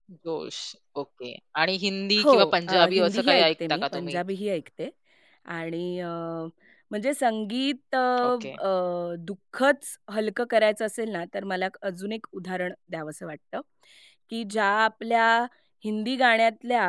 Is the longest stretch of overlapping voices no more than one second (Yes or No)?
No